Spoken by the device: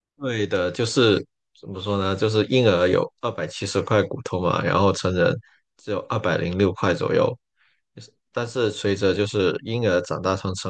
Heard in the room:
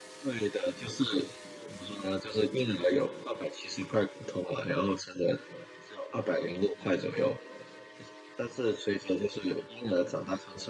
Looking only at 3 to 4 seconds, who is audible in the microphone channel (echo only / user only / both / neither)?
echo only